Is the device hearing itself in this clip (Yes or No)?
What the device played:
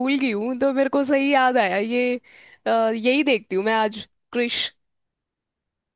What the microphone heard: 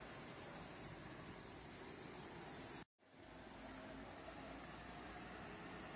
No